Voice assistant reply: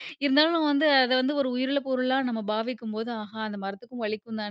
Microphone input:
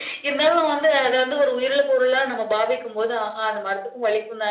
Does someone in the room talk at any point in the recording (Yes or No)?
No